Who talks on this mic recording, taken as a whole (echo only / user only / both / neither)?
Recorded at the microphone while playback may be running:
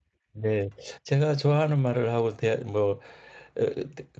user only